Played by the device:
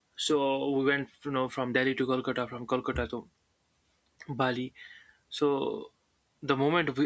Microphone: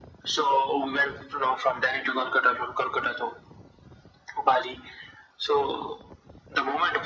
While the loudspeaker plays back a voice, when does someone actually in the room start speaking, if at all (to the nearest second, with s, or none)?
none